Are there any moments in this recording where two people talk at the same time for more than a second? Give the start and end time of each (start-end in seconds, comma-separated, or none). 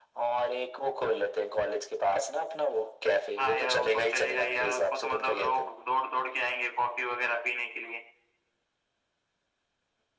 3.4-5.7